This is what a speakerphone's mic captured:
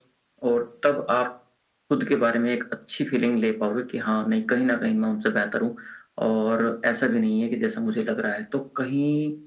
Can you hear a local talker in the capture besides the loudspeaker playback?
No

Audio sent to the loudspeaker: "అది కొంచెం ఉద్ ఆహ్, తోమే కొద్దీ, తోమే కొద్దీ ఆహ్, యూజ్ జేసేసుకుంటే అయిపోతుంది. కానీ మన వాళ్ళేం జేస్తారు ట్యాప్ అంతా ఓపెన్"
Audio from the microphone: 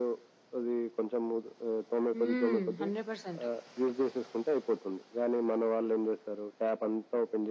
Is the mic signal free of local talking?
No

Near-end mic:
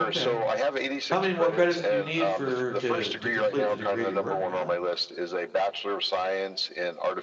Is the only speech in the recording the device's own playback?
No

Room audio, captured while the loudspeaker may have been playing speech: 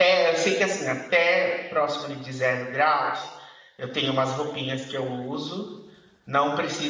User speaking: Yes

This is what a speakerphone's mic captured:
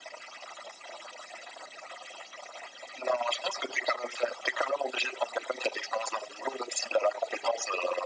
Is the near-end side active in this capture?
No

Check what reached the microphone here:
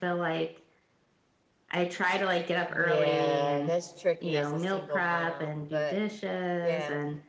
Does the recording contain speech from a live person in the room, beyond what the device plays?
Yes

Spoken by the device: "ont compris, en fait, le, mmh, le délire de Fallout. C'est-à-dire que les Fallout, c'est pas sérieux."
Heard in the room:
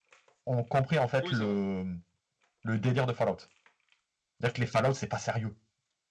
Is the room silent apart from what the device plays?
No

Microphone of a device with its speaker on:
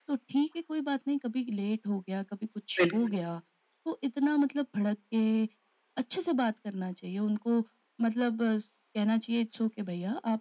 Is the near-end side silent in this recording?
No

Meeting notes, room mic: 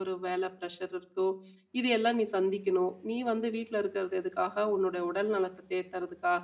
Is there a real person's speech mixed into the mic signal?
Yes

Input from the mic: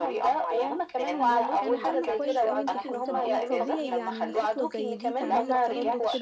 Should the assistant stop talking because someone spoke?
Yes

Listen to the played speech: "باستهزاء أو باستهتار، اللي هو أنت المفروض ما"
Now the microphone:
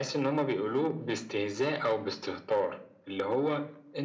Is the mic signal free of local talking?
Yes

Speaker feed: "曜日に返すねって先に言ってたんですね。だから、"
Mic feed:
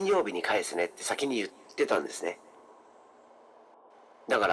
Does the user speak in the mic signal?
No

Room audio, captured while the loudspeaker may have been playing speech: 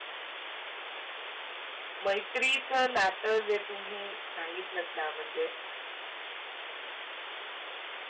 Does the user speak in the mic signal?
Yes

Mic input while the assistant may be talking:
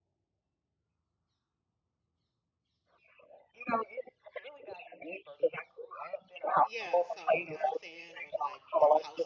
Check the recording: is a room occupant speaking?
Yes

